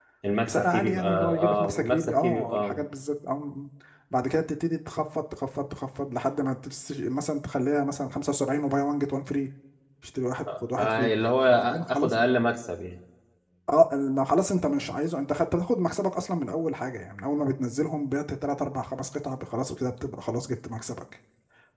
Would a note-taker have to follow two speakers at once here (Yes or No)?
Yes